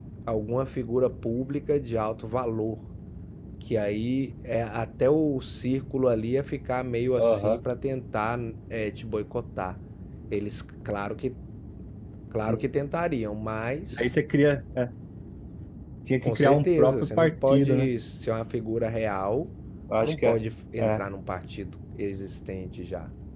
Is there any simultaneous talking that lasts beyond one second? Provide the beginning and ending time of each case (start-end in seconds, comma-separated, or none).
16.2-17.9